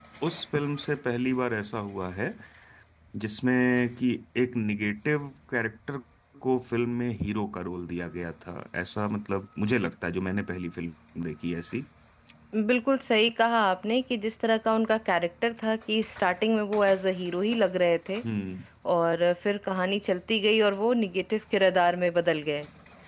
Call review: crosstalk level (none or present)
none